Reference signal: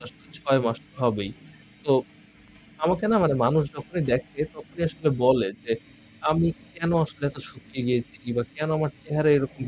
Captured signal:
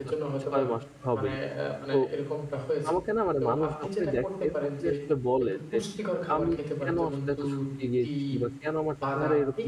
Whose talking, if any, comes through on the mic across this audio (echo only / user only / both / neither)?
both